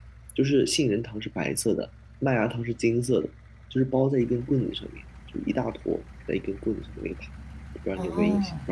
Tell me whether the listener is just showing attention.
No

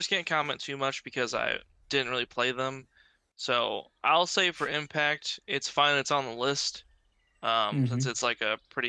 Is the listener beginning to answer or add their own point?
No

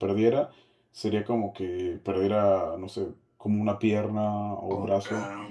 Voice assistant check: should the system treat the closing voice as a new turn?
No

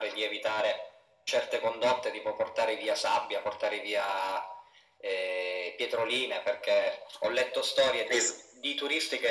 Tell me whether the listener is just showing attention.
Yes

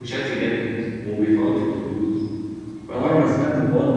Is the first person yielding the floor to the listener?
Yes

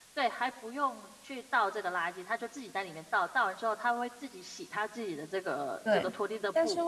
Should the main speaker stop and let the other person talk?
Yes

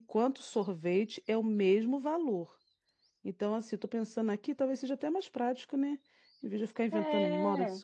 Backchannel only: Yes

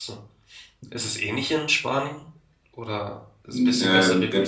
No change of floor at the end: No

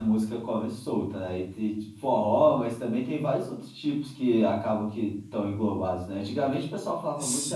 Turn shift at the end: No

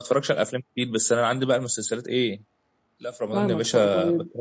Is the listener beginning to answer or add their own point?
Yes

